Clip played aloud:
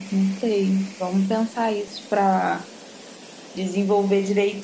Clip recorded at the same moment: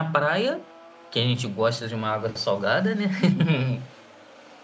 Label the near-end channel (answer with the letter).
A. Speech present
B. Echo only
A